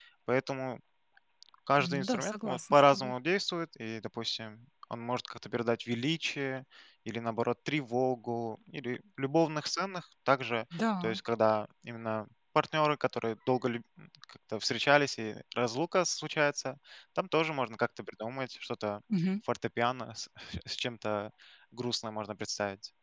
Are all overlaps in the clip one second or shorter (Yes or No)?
No